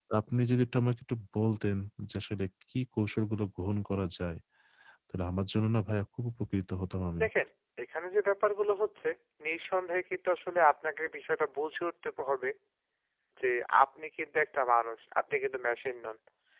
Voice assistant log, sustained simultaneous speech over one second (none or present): none